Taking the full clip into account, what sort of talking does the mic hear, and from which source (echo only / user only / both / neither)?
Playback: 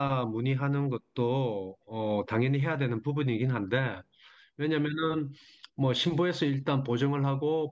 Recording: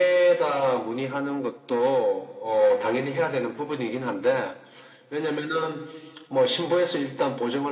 echo only